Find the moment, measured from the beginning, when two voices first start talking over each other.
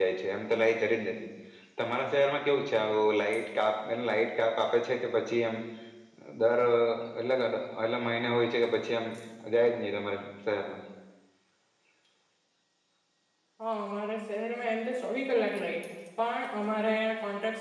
none

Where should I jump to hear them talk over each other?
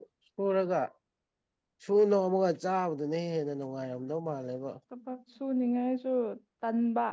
none

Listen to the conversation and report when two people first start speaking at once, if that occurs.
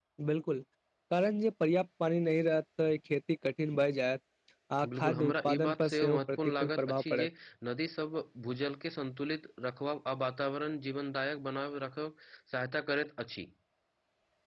5 s

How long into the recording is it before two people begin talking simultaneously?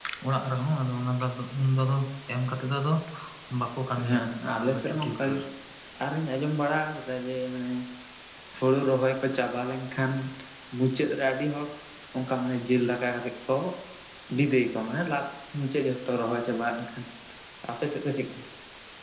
4 s

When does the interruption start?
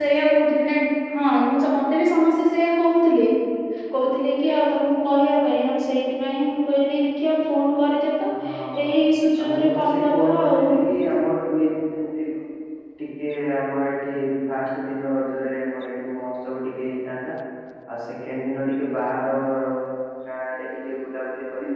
9 s

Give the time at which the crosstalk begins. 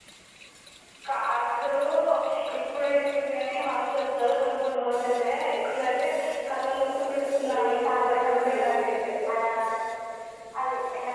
7 s

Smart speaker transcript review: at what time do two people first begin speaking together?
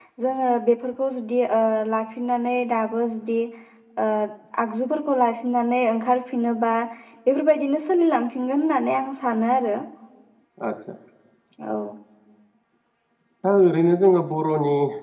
none

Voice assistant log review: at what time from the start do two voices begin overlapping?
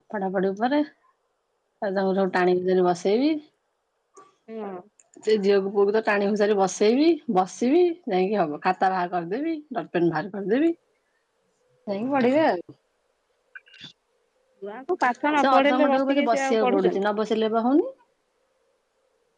15 s

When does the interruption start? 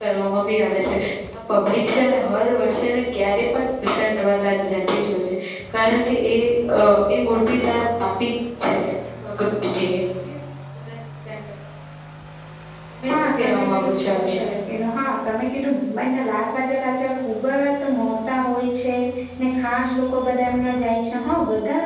13 s

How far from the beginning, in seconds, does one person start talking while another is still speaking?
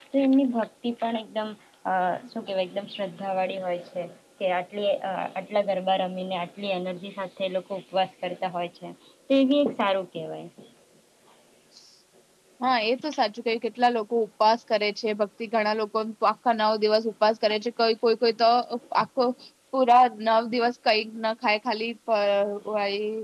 none

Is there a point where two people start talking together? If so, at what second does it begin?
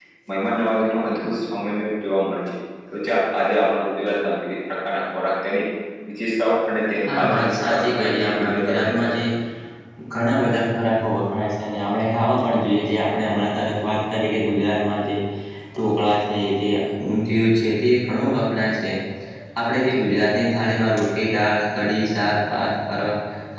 7 s

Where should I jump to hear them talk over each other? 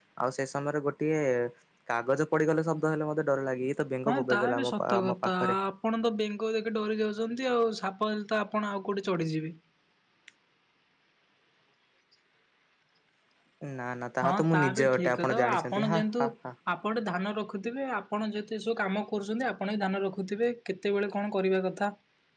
4 s

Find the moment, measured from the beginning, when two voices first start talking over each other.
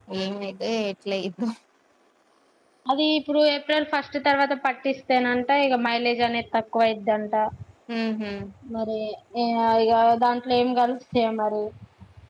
none

